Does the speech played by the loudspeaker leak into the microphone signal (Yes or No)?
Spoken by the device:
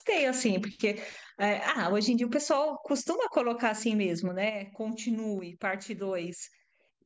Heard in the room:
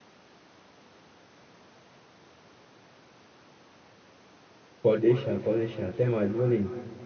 No